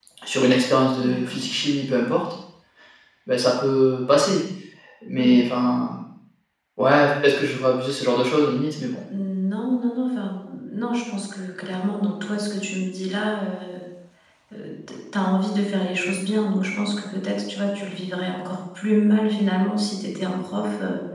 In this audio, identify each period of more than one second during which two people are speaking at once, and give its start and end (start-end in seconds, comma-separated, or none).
none